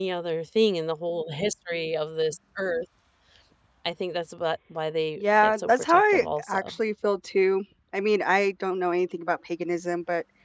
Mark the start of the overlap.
5.2 s

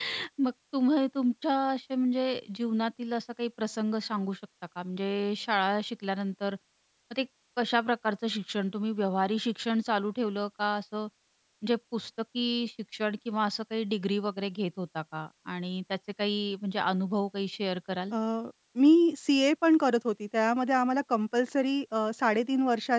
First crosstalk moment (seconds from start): none

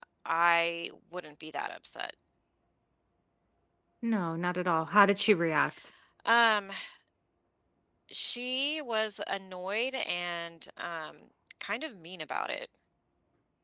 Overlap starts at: none

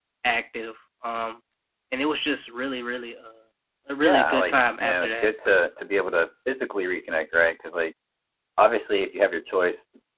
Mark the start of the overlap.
4.0 s

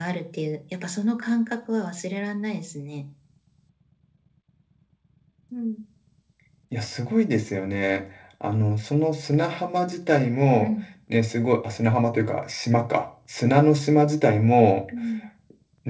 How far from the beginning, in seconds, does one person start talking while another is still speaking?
none

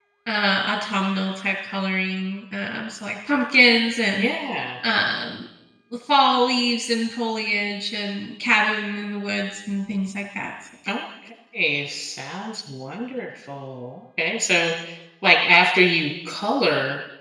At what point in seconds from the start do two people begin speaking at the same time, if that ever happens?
none

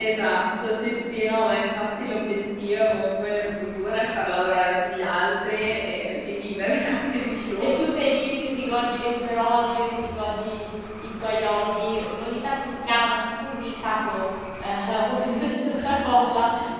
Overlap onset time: none

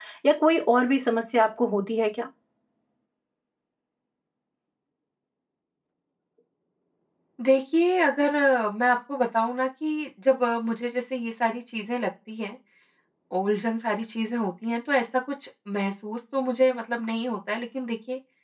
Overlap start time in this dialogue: none

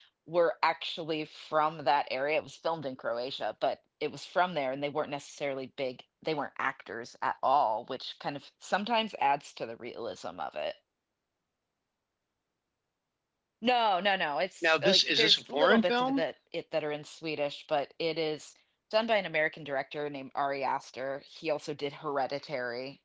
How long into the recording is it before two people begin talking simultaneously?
14.6 s

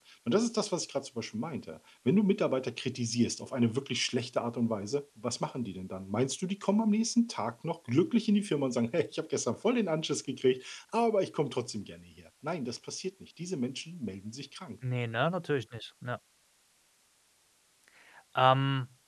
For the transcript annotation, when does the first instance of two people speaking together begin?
none

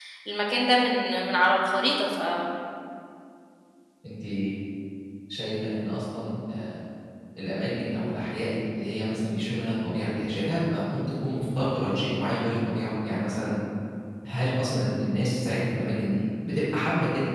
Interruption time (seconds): none

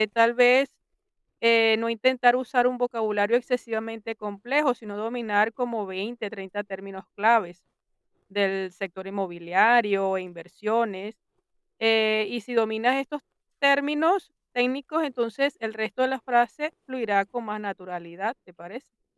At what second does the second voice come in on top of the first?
none

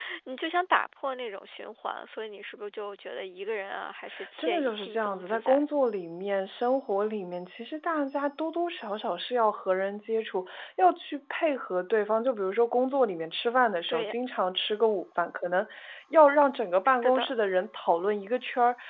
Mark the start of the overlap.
4.4 s

